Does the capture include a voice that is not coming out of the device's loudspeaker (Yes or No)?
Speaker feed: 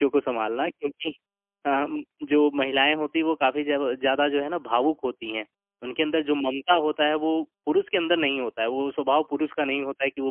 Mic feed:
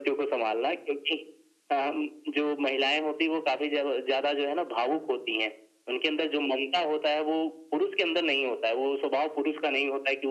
No